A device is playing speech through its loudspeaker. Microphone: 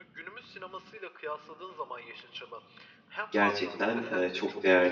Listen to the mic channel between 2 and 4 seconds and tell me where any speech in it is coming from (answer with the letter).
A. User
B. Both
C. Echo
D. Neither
B